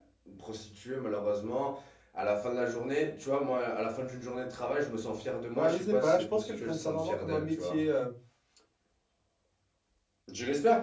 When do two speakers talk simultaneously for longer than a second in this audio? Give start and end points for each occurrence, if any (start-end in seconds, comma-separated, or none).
5.5-7.9